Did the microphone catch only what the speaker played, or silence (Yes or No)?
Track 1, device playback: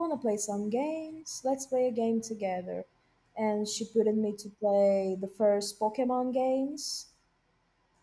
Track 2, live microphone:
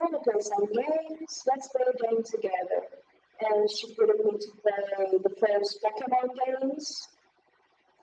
Yes